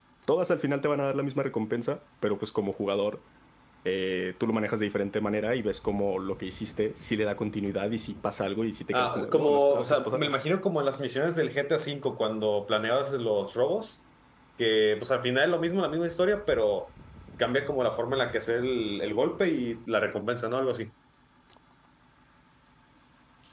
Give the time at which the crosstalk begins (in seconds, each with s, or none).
8.9 s